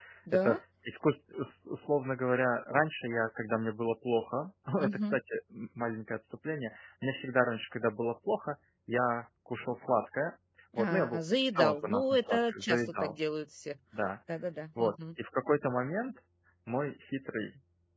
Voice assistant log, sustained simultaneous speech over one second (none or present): present